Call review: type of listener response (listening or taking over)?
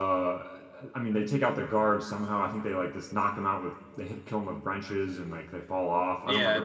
taking over